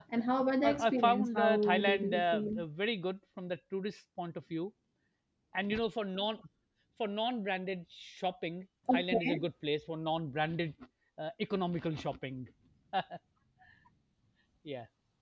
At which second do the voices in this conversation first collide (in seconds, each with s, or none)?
0.6 s